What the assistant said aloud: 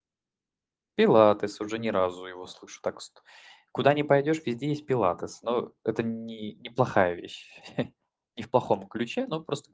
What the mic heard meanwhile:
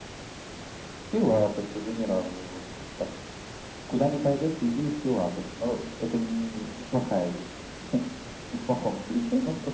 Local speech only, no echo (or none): none